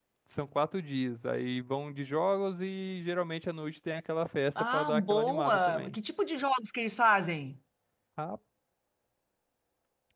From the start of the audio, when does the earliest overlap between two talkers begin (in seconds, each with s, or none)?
4.6 s